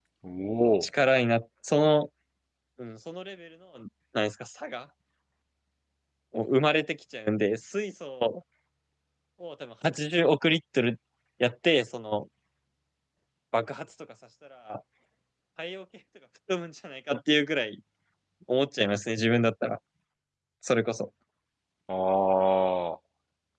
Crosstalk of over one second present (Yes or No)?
No